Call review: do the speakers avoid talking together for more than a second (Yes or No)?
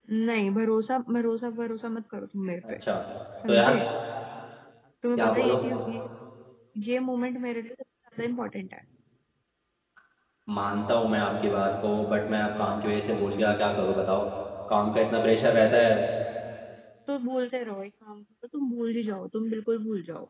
Yes